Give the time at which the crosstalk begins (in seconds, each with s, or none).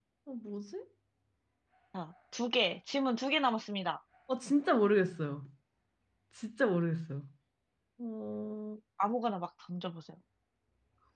none